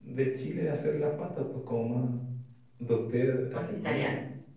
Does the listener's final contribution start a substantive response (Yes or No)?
No